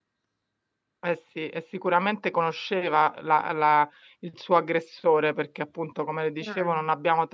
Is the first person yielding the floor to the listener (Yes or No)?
No